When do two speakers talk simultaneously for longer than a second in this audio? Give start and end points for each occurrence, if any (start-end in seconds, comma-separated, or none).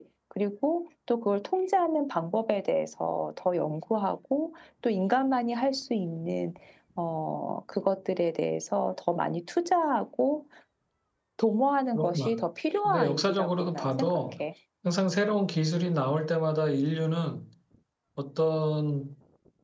12.8-14.2